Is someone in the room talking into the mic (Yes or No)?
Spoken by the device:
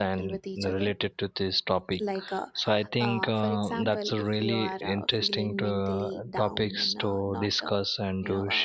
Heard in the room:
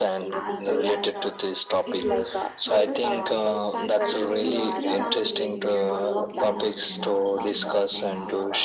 Yes